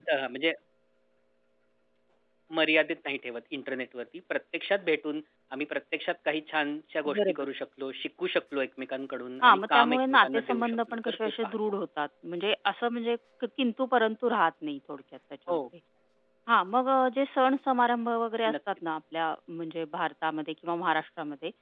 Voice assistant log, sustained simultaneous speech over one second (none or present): present